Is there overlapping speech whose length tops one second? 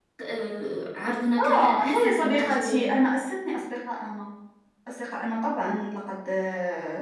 Yes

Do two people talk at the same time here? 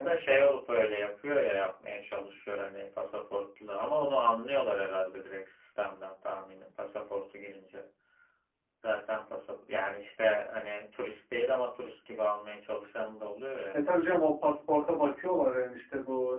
No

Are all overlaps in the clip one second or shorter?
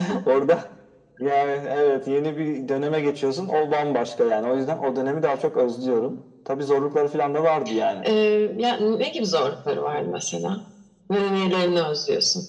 Yes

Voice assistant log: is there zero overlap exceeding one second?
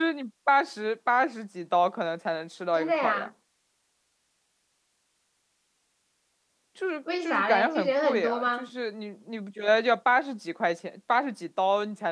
No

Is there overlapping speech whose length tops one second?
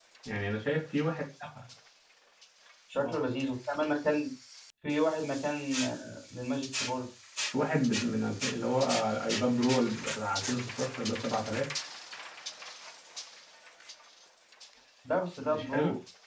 No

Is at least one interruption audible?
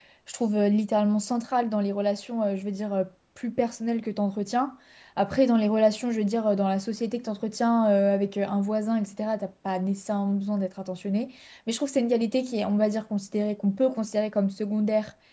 No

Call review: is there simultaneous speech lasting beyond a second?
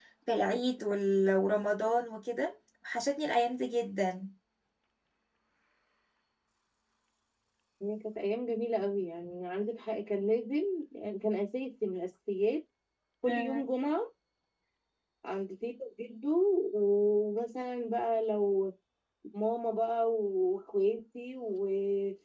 No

